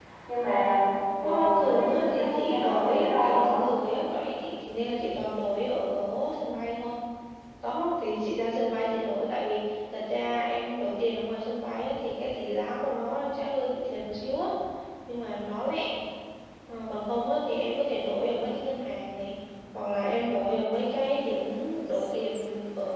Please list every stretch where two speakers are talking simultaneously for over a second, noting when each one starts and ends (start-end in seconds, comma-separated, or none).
1.2-3.4